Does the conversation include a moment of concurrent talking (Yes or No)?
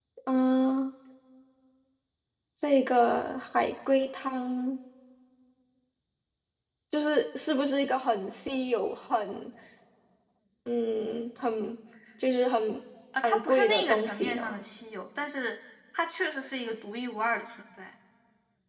Yes